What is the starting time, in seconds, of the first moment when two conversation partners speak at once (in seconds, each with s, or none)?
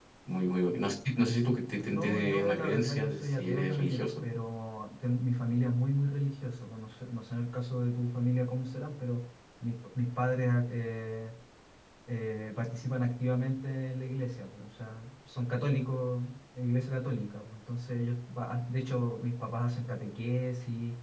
1.9 s